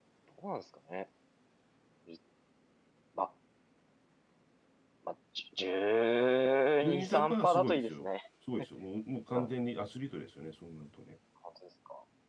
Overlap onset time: 6.8 s

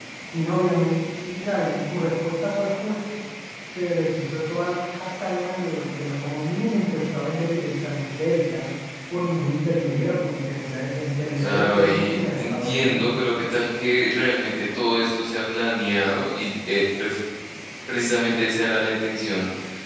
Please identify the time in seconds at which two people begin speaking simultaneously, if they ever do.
11.3 s

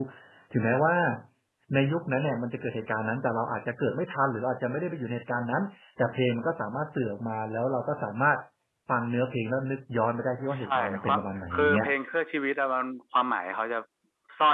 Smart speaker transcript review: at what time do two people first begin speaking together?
10.5 s

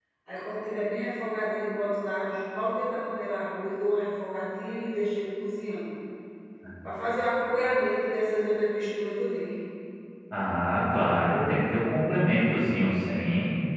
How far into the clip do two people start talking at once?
none

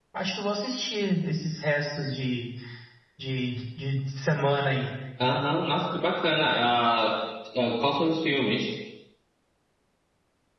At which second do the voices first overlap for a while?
none

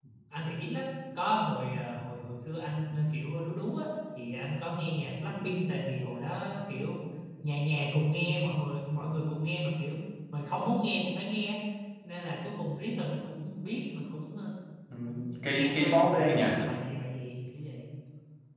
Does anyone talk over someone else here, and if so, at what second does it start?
15.1 s

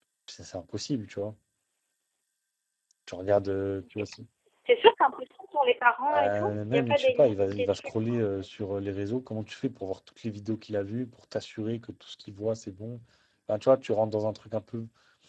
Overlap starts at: 6.1 s

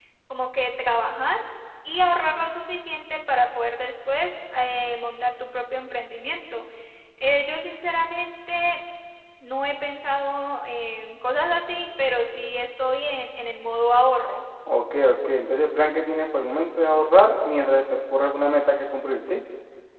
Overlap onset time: none

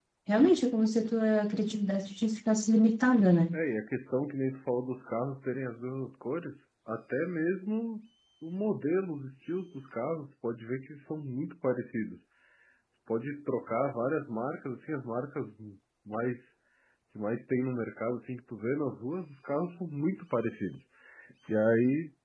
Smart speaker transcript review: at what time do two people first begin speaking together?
none

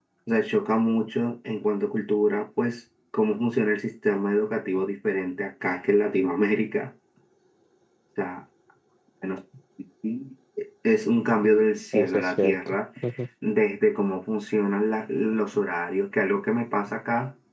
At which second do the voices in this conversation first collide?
11.4 s

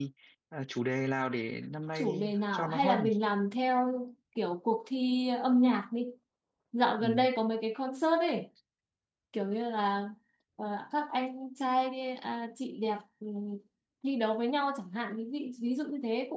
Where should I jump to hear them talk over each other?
1.9 s

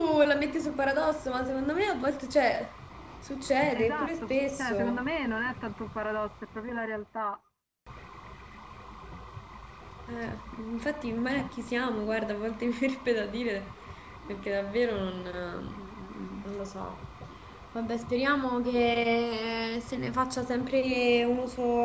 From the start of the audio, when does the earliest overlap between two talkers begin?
3.8 s

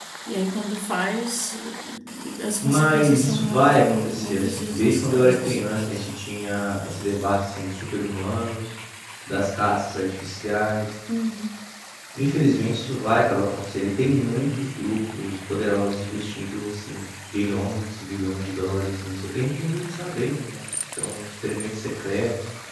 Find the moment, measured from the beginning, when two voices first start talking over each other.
2.6 s

